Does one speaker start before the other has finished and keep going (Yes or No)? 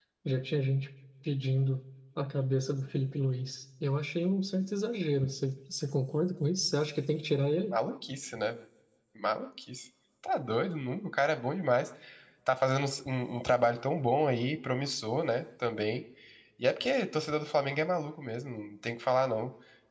No